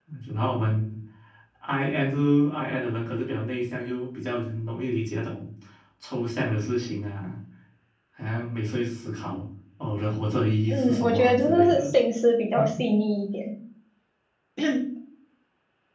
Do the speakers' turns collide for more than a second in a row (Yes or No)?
Yes